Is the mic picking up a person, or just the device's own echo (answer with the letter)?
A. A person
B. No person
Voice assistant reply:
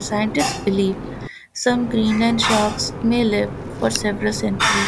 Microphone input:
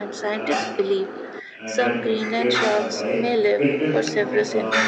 A